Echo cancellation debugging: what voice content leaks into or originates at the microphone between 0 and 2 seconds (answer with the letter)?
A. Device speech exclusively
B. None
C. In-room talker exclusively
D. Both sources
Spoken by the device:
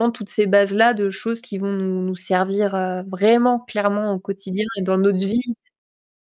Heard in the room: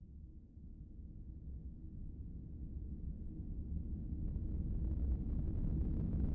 B